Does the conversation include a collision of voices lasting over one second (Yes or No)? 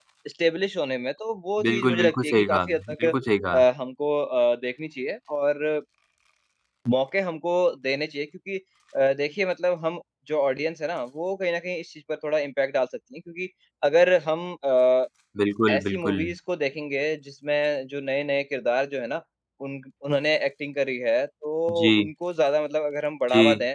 Yes